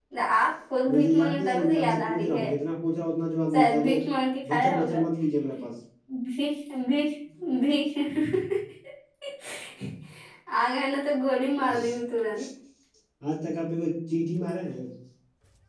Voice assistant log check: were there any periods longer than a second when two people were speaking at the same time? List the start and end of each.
0.9-2.5

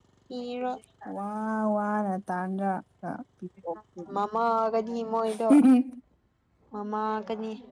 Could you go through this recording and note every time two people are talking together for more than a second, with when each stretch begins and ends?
none

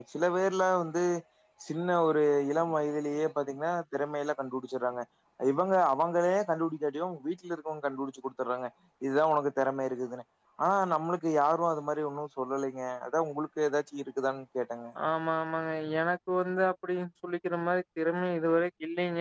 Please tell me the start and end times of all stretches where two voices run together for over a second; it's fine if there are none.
none

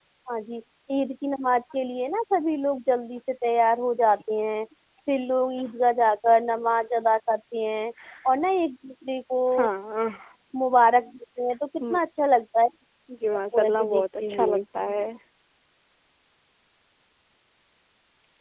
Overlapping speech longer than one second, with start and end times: 13.3-14.6

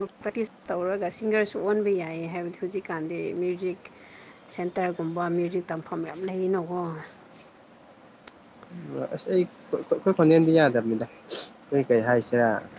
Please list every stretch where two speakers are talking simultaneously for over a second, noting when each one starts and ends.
none

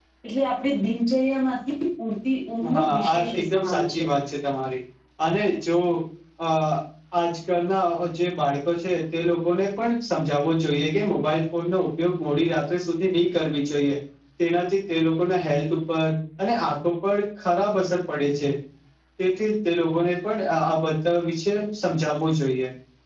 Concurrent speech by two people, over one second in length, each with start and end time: 2.8-4.0

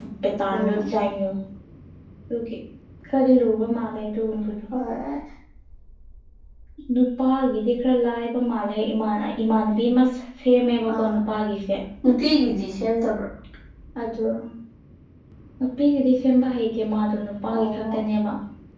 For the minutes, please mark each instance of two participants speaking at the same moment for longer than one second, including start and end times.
none

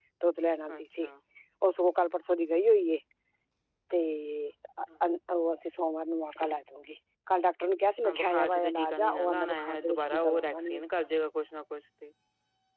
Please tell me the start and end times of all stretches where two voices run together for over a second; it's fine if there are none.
8.0-10.8

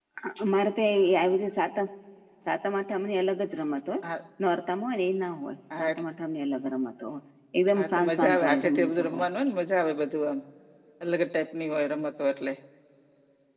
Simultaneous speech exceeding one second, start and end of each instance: 7.8-9.3

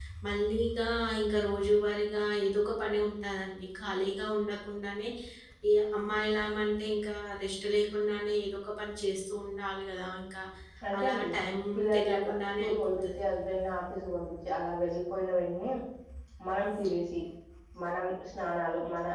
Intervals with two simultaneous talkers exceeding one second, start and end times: 11.9-13.2

